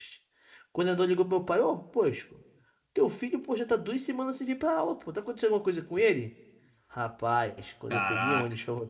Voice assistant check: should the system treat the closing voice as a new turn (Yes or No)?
No